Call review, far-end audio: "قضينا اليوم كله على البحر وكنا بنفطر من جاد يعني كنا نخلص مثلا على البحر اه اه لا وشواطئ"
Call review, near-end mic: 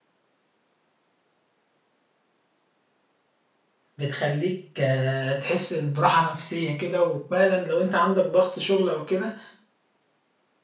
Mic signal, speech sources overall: user only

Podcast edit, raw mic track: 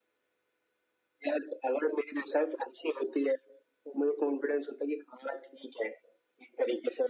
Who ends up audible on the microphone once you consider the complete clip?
echo only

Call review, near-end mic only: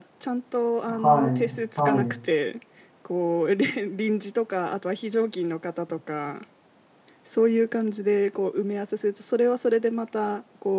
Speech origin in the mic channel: both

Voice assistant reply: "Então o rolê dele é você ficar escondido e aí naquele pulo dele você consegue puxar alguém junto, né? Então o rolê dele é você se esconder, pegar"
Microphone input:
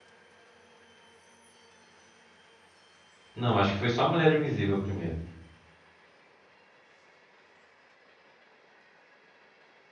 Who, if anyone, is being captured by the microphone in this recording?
user only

